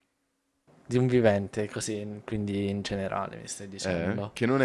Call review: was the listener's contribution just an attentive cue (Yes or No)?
No